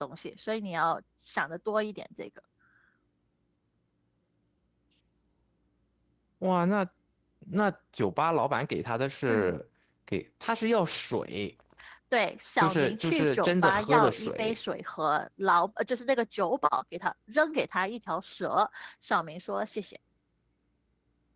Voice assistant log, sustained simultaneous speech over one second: present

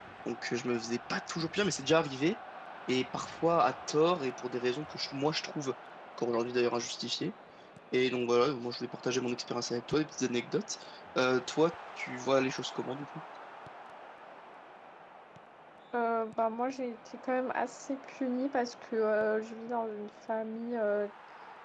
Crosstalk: none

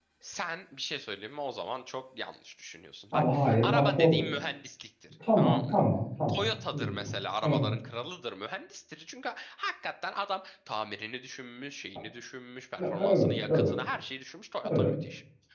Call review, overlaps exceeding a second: present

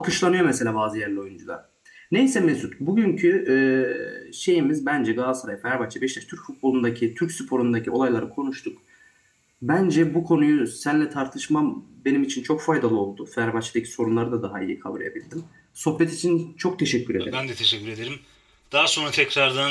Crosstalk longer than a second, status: none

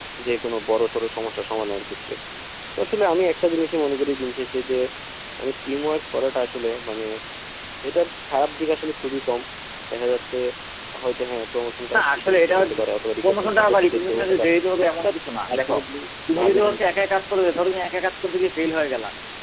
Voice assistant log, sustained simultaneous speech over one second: present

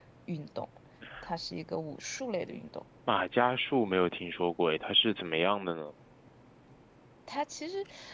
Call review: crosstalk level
none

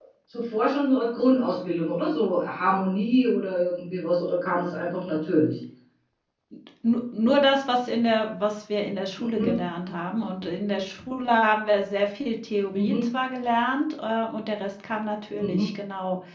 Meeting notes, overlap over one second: none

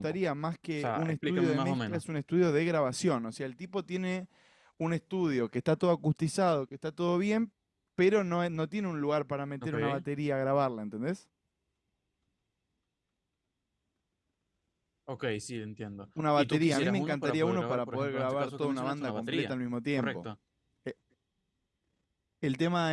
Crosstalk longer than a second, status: present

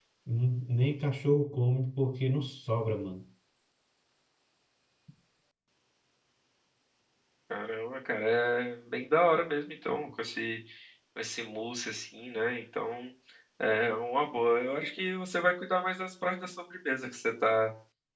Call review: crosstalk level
none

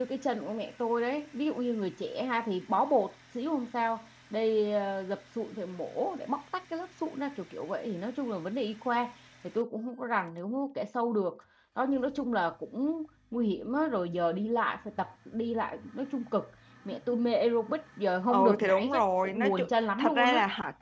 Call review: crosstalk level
present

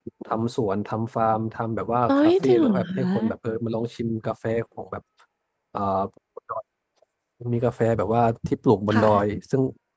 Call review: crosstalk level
present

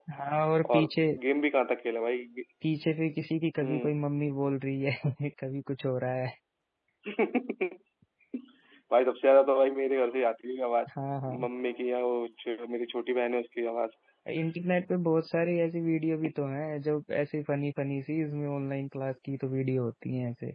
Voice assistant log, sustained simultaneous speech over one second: none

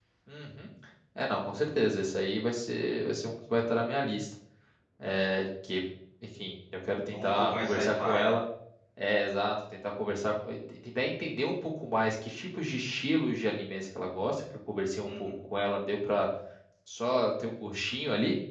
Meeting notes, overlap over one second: present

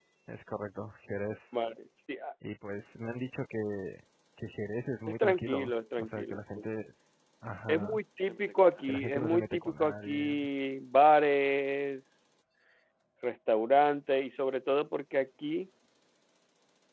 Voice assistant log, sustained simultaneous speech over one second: present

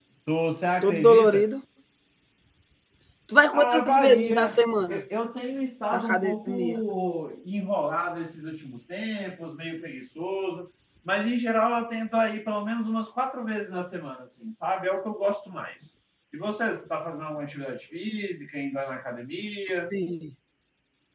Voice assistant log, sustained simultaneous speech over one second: present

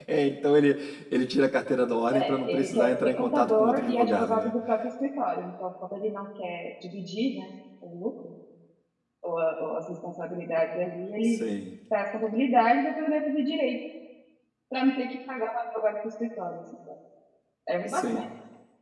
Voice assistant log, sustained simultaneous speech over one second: present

